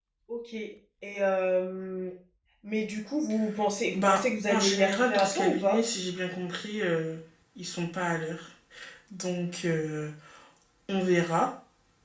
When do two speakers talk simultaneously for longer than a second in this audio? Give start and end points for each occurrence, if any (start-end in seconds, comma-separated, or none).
3.9-5.8